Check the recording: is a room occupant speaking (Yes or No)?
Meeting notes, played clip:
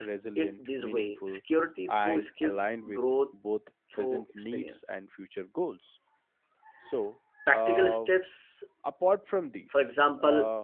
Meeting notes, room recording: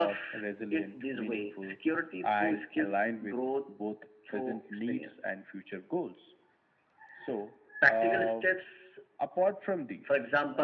No